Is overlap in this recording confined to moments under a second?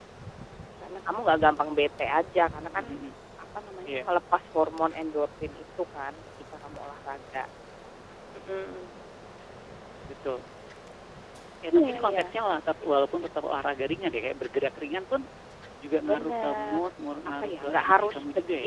No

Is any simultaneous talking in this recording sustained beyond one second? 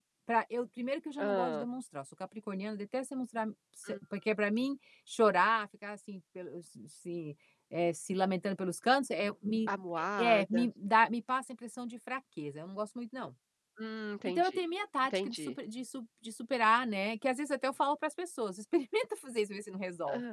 No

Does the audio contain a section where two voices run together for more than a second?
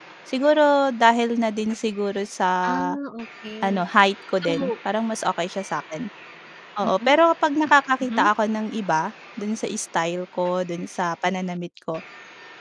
No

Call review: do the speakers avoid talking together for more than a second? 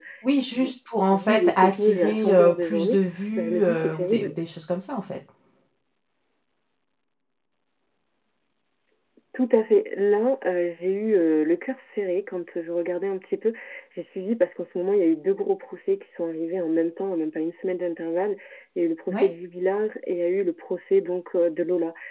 No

